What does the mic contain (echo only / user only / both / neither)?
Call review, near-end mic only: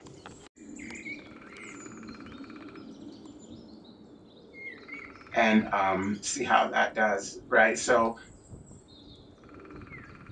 user only